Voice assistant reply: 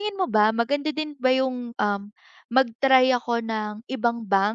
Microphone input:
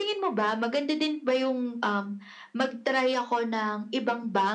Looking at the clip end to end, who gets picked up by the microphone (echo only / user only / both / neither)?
echo only